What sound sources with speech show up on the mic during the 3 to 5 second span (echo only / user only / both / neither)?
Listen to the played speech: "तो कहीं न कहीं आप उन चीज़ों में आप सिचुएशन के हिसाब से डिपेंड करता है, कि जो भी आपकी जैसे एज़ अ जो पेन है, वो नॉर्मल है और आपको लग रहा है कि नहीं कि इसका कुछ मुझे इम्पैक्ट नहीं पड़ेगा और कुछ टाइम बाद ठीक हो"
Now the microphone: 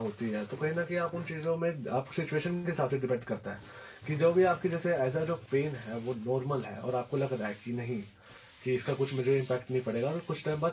echo only